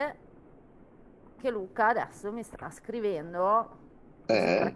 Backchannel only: Yes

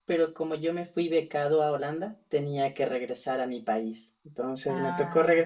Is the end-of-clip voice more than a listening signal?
No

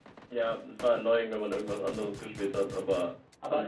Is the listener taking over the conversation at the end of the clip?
Yes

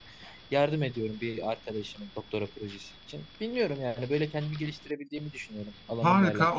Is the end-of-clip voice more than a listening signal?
Yes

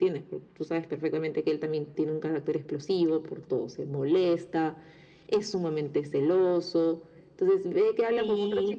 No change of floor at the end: Yes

